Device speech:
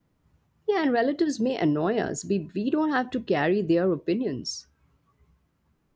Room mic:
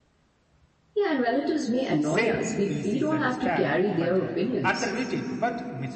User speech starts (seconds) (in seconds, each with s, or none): 2.0 s